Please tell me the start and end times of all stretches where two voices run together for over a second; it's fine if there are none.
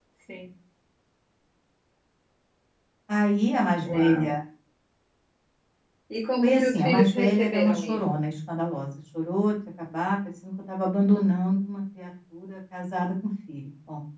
6.4-8.2

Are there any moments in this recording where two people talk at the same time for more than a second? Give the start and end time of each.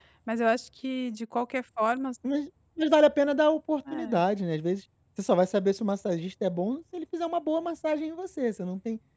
none

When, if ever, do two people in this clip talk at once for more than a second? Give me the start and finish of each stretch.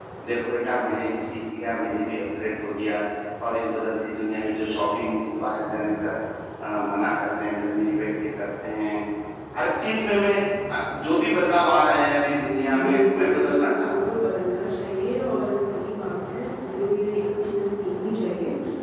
12.8-14.2

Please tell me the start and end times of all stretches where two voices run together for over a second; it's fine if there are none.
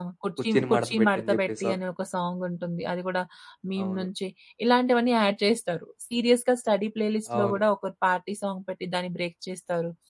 0.5-1.8

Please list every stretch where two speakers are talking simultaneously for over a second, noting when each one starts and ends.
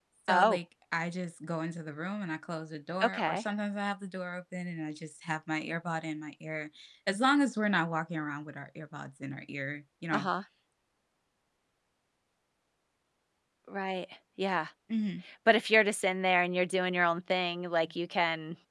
none

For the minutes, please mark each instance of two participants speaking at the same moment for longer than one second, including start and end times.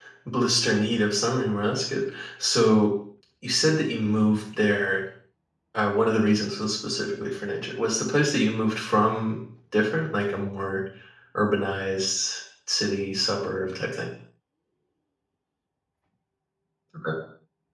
none

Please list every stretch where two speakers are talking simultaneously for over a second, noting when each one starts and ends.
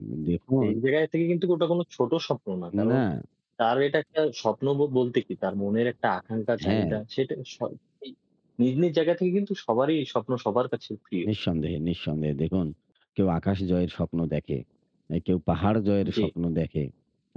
none

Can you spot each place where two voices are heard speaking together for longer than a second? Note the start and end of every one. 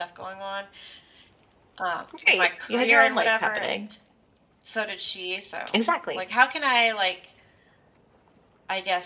2.3-3.8

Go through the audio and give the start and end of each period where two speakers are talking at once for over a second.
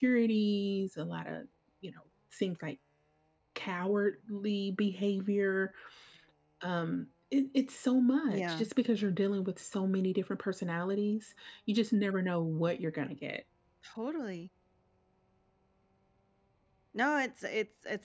none

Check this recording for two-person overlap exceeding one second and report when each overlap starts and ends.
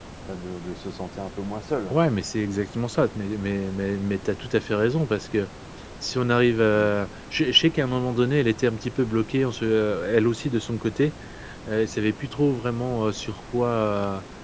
none

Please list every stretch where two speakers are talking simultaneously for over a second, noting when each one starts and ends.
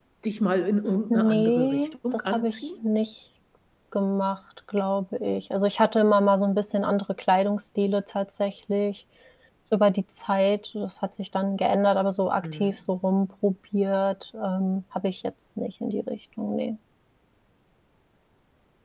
1.1-2.7

